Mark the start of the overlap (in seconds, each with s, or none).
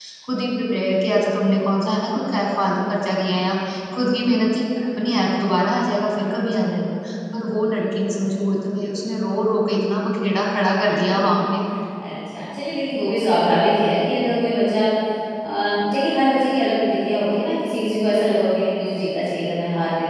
none